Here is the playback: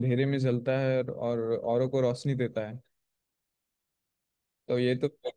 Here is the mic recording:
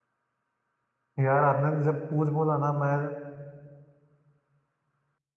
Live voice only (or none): यार आपने जब पूछ बोला ना मैं